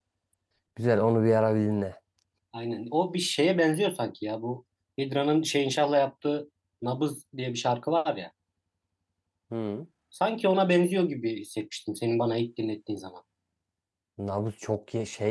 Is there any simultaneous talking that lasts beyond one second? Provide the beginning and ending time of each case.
none

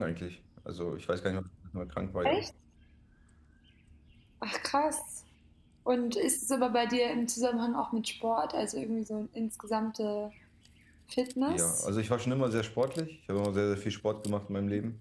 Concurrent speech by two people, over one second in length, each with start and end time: none

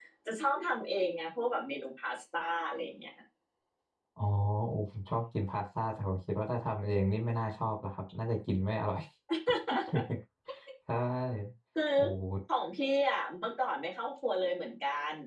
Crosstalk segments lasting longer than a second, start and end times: none

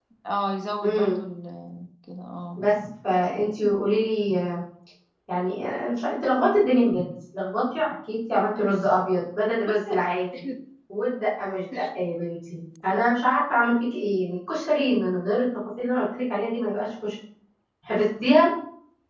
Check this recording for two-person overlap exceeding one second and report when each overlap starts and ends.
none

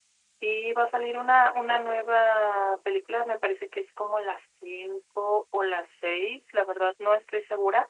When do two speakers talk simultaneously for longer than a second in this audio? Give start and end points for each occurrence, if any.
none

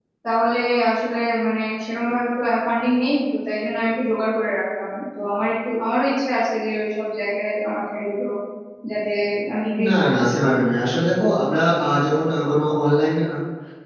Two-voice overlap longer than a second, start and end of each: none

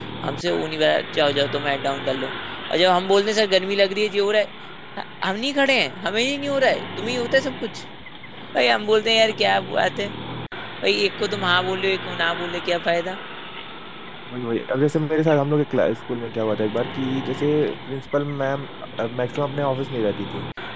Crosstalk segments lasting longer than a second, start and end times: none

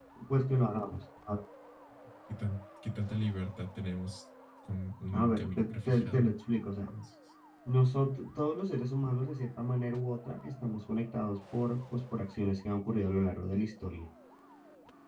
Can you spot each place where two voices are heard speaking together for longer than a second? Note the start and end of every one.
5.1-6.3

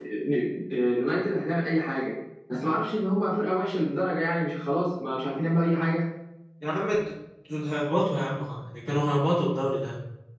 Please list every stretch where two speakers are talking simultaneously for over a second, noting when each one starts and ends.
none

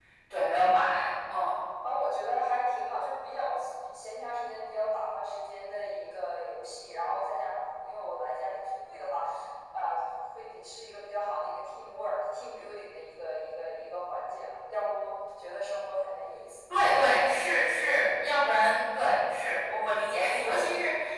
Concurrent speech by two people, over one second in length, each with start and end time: none

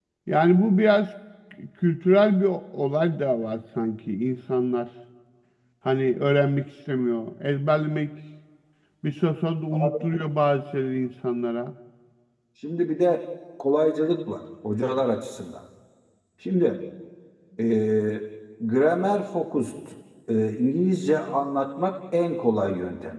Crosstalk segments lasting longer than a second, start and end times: none

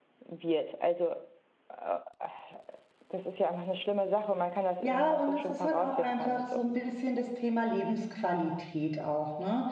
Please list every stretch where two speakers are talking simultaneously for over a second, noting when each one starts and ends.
4.8-6.6

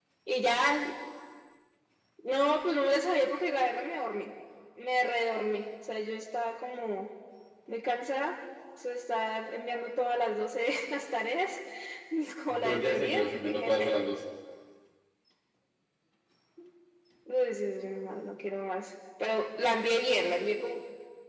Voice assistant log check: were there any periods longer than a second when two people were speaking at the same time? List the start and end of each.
12.5-13.9

